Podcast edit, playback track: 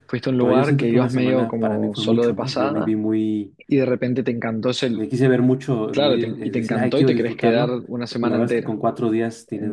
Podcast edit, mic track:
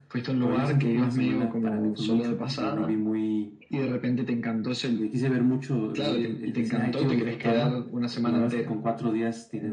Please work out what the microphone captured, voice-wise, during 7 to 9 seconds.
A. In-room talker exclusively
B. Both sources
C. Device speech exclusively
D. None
C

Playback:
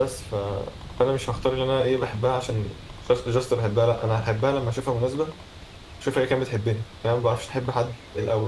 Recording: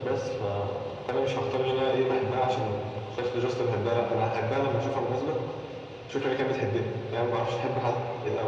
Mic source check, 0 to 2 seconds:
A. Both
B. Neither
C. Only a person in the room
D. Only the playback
D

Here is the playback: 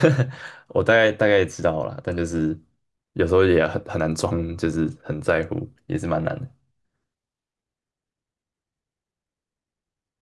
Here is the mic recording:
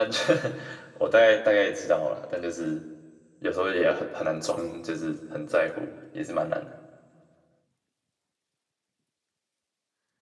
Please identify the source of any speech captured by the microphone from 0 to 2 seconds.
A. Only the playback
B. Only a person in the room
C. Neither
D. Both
A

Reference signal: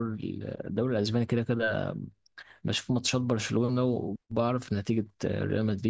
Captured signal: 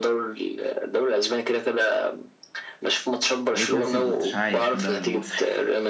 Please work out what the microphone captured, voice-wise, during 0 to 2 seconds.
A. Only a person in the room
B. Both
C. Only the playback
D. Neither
C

